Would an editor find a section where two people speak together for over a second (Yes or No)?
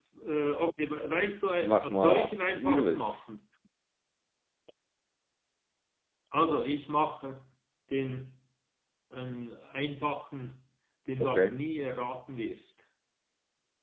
Yes